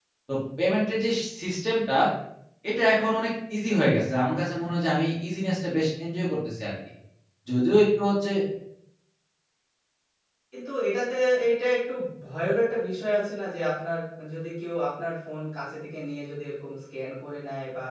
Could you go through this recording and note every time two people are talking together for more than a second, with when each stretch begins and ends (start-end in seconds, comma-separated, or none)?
none